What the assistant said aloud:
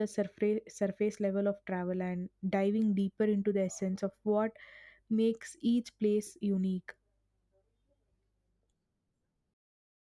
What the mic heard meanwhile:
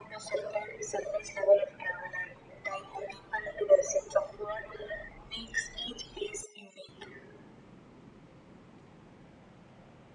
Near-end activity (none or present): none